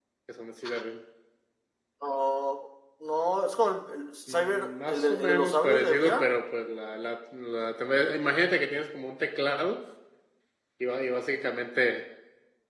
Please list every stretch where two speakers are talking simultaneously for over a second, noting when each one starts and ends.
4.3-6.2

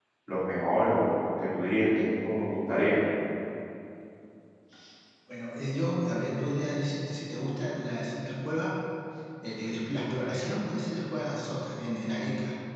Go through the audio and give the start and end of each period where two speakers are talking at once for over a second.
none

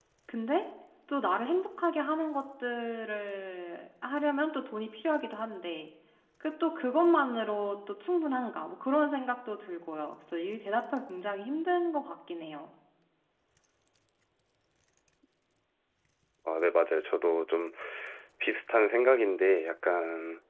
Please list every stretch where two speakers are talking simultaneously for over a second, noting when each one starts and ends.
none

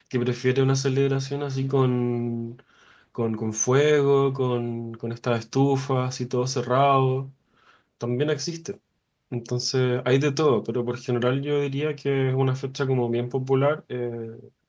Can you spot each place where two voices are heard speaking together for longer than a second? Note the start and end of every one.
none

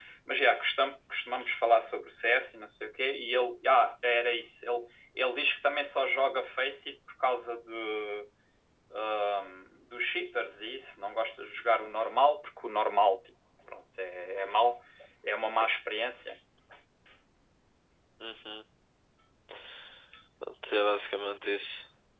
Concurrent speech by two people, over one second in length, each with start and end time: none

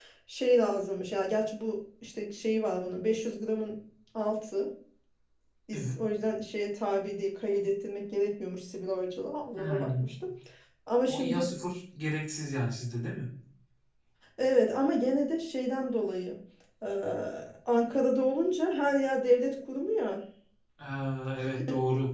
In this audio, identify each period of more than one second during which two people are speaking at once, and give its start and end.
none

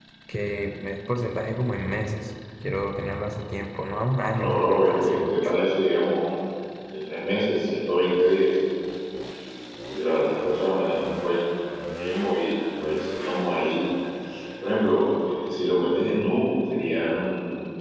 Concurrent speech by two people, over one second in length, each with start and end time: 4.3-5.5

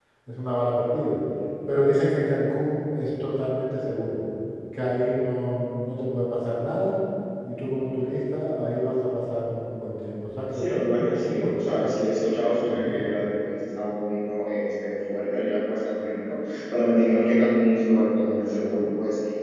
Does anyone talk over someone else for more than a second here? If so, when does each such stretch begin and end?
10.5-11.9

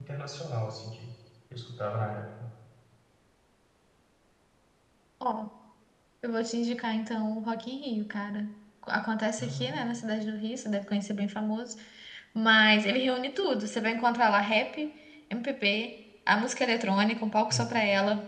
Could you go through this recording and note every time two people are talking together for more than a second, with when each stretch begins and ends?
none

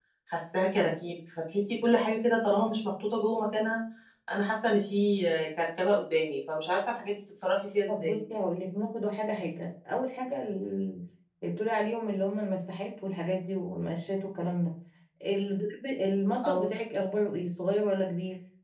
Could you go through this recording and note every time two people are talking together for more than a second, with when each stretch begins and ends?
none

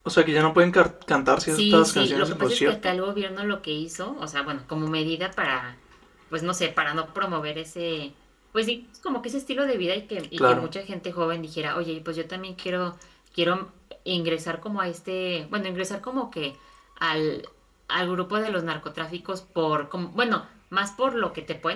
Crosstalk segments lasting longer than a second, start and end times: 1.5-2.8

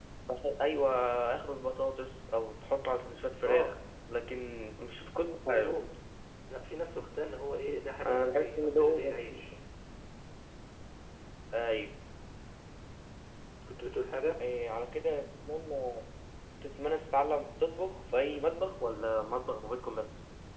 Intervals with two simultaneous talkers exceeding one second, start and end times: 8.0-9.4

